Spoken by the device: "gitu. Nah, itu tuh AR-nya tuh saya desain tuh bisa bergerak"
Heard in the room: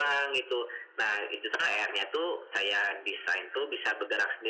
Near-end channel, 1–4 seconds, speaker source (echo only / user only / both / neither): echo only